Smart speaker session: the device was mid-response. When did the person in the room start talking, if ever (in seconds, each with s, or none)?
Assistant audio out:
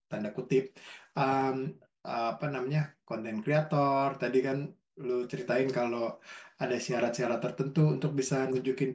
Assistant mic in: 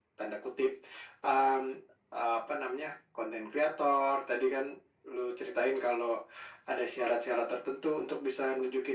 none